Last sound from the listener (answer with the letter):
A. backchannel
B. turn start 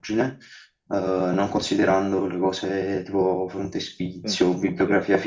A